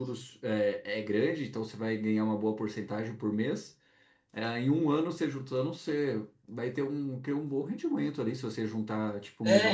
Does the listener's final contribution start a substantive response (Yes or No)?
Yes